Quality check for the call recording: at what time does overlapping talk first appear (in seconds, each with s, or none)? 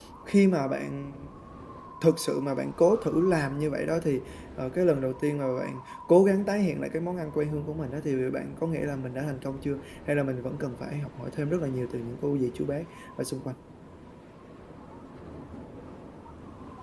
none